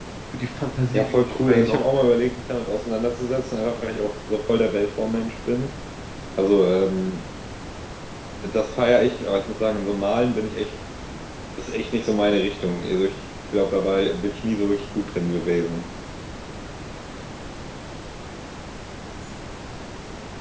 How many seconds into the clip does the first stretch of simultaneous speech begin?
0.9 s

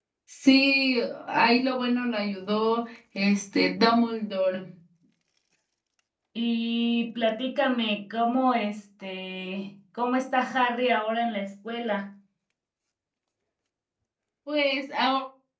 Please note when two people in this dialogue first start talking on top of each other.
none

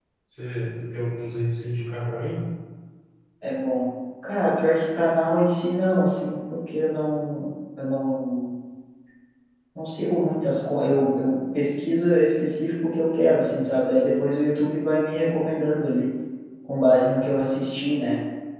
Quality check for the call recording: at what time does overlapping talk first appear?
none

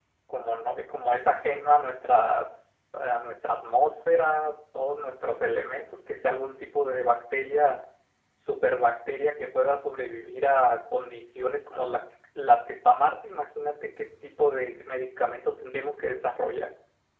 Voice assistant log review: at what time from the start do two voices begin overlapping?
none

